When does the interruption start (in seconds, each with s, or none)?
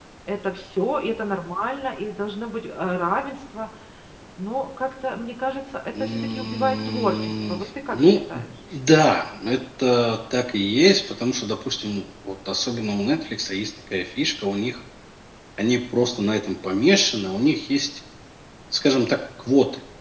5.9 s